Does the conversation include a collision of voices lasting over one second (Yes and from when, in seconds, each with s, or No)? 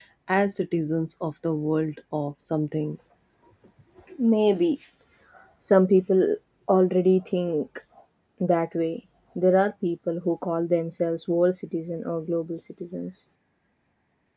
No